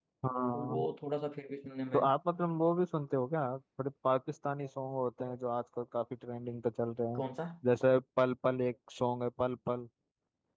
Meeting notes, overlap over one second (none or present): none